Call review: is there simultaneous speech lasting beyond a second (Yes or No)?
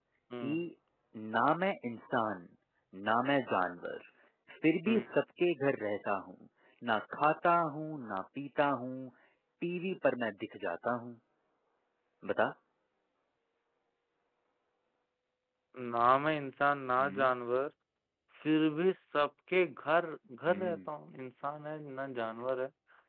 No